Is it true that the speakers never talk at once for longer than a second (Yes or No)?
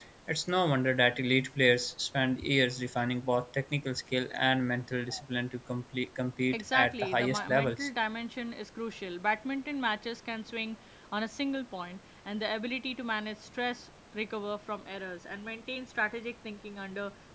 No